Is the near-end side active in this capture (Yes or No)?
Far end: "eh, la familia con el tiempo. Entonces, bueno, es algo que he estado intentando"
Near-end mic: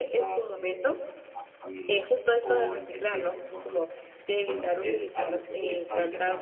Yes